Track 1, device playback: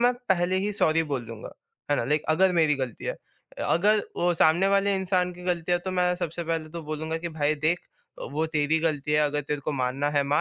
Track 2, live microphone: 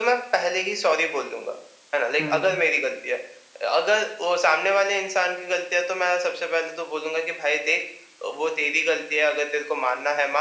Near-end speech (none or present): present